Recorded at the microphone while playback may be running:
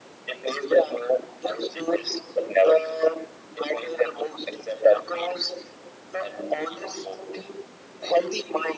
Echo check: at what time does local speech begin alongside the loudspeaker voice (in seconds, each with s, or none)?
none